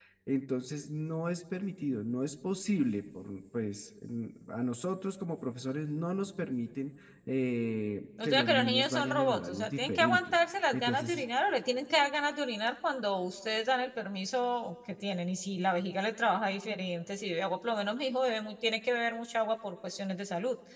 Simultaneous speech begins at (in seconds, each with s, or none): 8.2 s